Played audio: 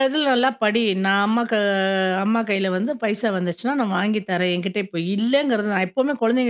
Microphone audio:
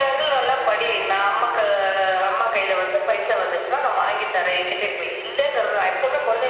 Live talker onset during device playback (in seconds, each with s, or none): none